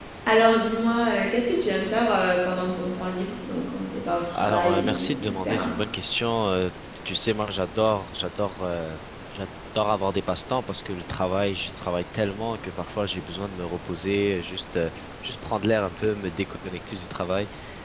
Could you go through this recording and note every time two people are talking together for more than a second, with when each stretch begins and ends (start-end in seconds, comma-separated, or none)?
4.3-5.7